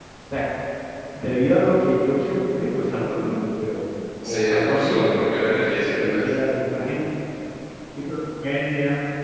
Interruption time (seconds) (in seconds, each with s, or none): 4.2 s